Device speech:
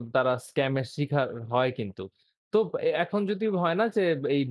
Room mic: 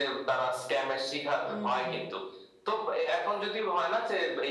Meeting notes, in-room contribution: present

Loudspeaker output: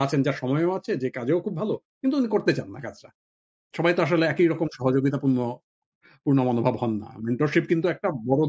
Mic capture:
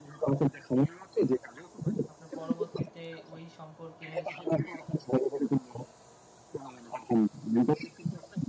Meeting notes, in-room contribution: present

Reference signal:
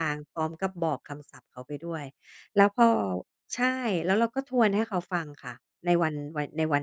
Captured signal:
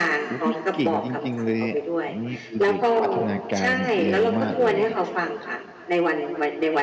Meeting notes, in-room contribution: present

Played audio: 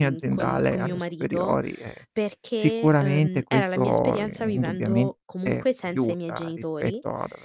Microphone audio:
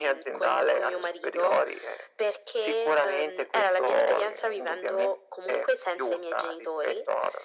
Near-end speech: none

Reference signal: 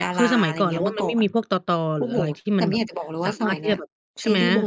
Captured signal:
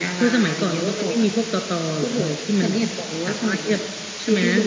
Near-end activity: none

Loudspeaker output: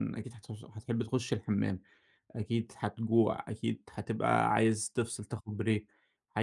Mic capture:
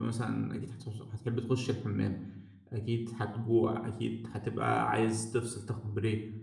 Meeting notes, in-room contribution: none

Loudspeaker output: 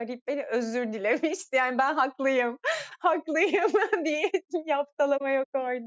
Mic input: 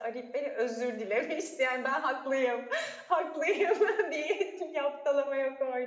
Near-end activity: none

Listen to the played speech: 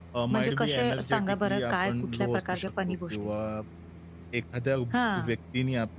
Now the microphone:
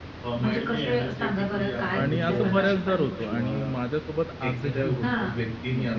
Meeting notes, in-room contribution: present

